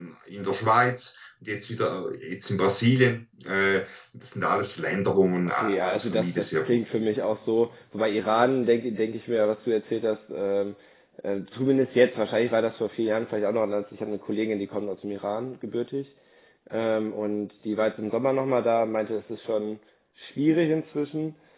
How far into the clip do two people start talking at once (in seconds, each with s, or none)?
5.5 s